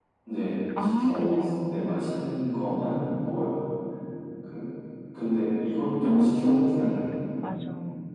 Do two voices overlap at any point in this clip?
Yes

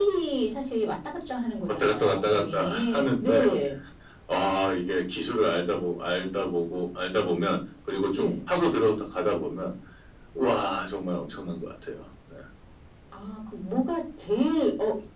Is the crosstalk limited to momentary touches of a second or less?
No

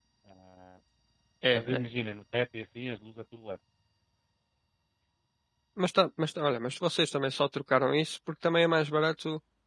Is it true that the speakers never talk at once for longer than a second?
Yes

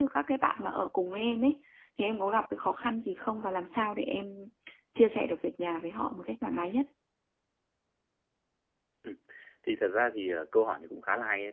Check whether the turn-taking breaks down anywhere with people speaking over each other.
No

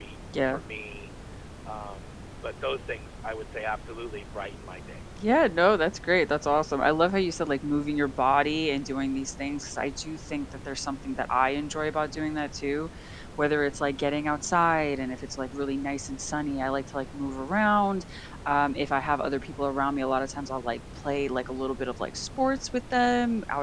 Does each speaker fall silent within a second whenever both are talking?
Yes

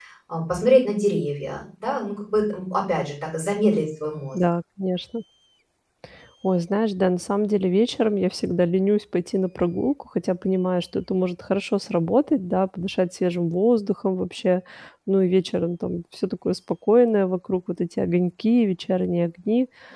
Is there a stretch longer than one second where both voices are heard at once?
No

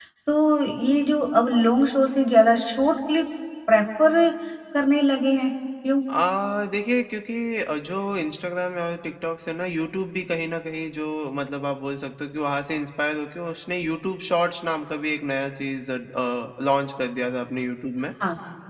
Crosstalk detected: No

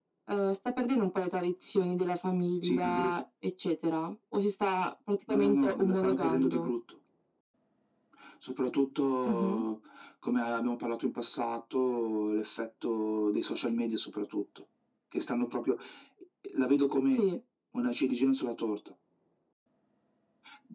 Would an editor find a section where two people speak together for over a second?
Yes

